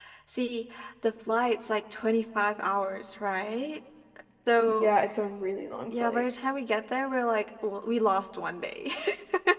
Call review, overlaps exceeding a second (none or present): none